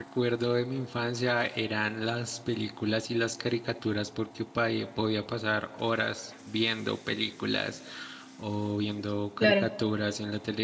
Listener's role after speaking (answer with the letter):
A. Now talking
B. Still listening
B